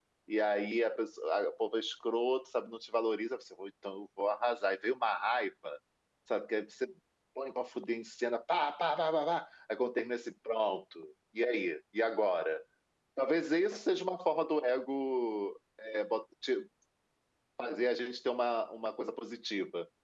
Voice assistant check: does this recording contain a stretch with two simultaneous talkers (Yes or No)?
No